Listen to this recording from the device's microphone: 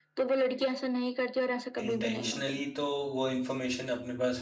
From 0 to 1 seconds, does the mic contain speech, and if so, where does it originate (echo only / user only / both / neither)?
echo only